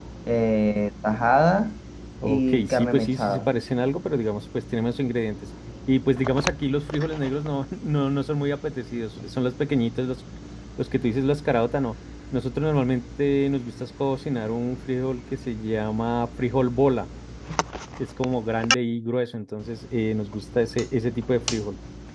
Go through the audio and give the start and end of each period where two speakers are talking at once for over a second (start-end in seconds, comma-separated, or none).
2.2-3.5